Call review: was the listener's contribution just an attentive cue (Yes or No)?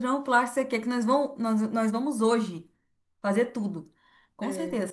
Yes